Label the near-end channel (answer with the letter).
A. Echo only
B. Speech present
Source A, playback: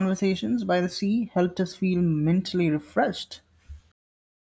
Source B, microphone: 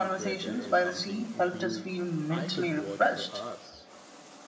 B